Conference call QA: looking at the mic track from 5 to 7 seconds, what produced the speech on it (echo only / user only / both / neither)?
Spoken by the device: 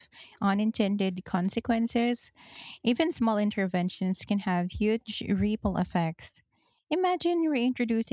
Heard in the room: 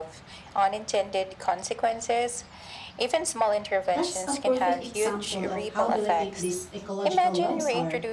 both